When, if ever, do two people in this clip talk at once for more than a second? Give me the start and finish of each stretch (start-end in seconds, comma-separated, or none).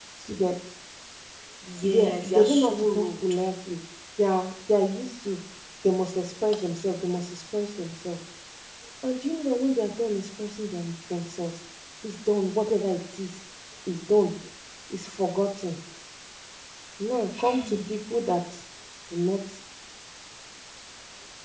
1.8-3.0